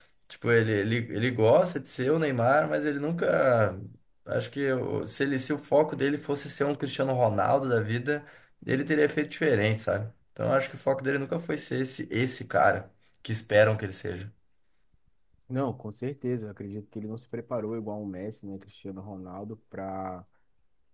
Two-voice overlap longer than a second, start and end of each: none

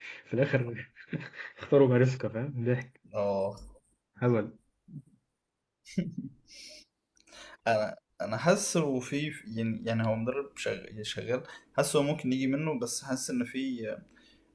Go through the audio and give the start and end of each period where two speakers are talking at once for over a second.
none

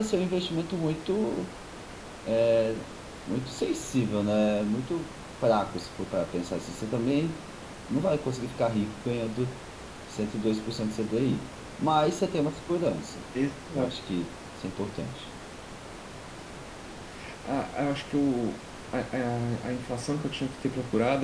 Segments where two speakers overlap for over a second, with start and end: none

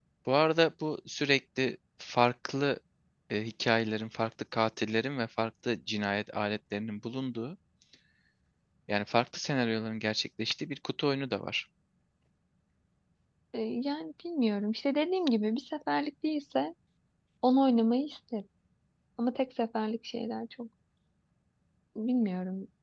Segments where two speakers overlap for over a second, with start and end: none

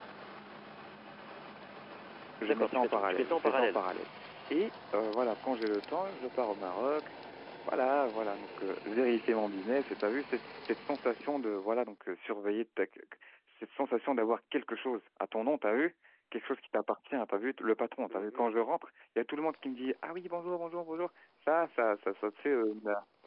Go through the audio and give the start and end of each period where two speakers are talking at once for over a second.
2.5-3.8

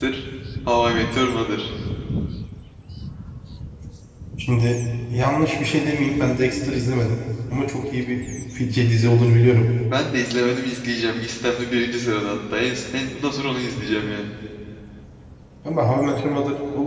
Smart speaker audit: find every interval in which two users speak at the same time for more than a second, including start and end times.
none

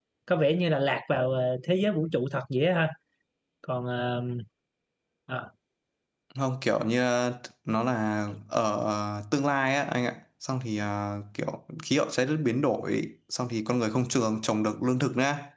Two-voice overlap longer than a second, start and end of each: none

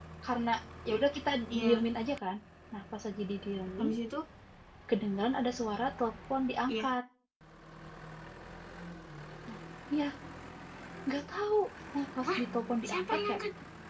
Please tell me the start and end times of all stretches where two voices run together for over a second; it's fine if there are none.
none

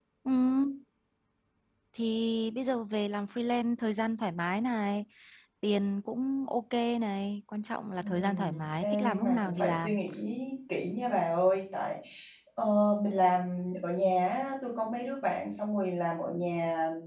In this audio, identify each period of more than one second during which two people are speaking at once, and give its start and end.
8.0-10.0

